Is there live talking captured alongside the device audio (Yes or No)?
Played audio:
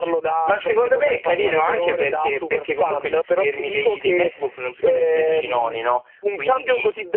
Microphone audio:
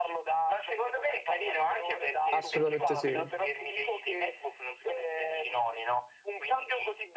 Yes